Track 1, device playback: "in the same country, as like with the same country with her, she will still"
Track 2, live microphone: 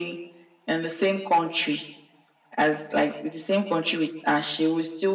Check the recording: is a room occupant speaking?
No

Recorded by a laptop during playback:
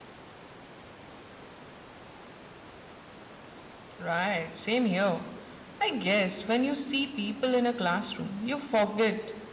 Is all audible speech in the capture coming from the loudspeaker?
No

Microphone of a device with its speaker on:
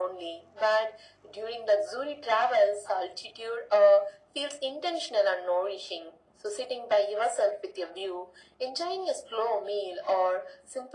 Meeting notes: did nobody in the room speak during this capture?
Yes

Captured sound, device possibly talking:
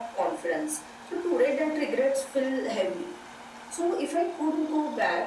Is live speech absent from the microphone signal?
Yes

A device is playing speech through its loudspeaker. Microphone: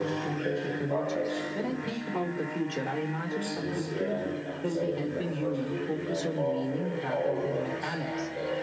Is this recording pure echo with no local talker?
No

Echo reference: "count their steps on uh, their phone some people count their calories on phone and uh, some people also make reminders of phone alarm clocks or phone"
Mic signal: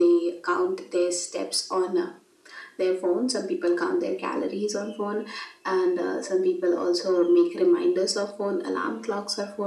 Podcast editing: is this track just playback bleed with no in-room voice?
Yes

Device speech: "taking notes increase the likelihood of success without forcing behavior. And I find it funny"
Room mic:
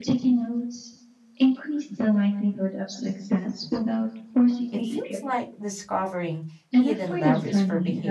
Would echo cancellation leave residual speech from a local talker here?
Yes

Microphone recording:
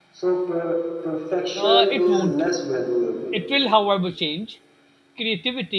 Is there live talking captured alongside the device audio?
Yes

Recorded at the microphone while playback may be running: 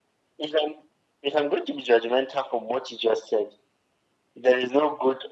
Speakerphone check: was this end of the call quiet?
Yes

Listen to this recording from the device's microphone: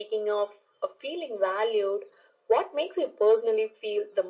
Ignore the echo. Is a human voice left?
No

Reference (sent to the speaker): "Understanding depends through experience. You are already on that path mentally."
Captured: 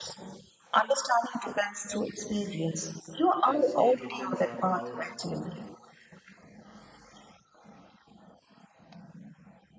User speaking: Yes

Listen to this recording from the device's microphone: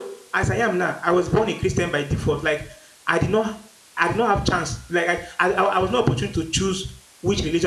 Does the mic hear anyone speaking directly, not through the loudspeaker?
Yes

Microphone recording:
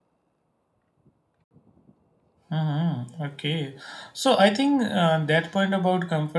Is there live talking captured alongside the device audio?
Yes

